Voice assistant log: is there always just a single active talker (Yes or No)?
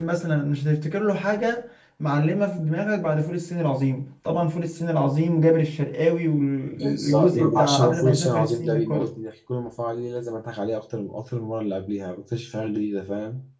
No